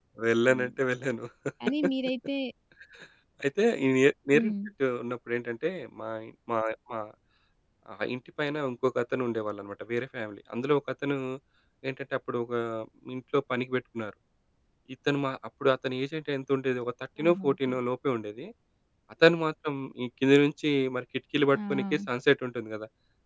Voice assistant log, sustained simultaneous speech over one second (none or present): none